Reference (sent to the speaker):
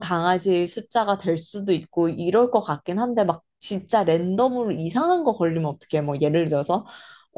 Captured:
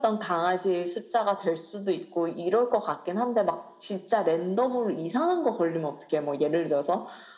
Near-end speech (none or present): none